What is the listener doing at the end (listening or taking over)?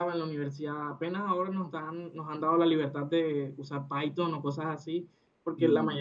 listening